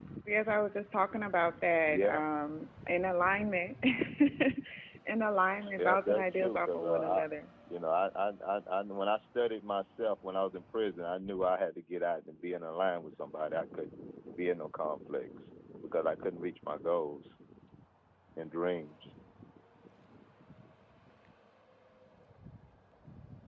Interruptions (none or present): present